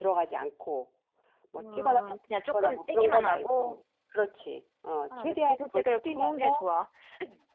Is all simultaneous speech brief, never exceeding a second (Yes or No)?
No